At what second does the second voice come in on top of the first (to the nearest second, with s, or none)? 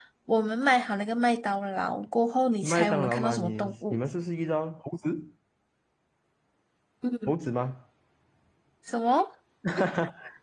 3 s